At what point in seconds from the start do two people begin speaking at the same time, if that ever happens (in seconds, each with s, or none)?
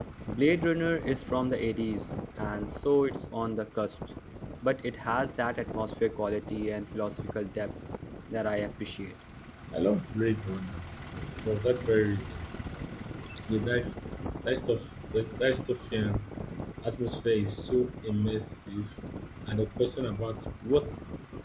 none